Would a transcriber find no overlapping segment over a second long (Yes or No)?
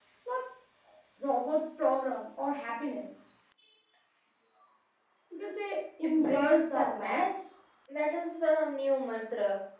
No